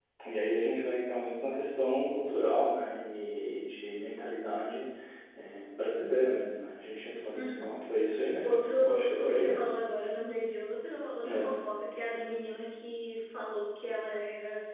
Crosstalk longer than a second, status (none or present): present